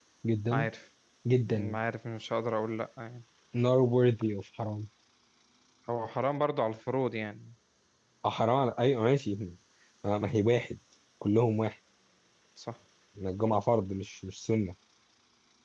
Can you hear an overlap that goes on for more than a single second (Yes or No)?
No